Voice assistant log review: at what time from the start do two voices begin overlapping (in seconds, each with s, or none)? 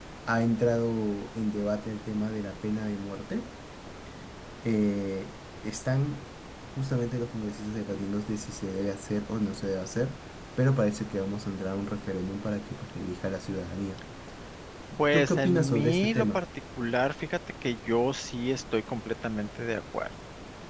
15.1 s